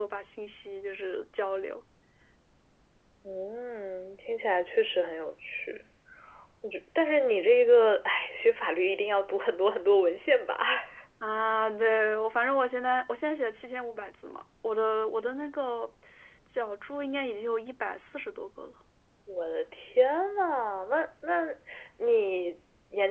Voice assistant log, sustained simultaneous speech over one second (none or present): none